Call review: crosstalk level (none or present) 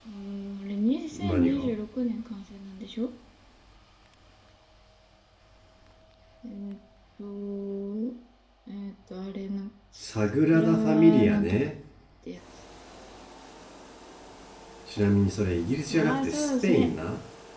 present